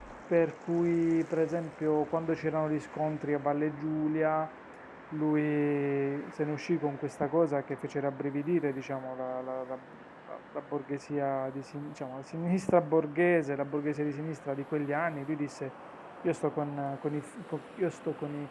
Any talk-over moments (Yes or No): No